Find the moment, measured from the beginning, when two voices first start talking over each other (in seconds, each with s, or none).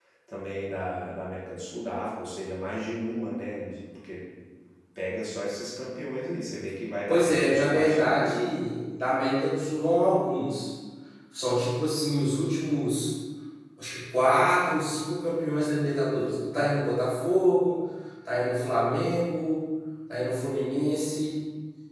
7.1 s